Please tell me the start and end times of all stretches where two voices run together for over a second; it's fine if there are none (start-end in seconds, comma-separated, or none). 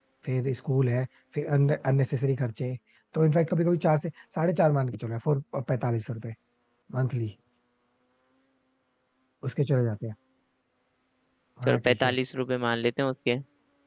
none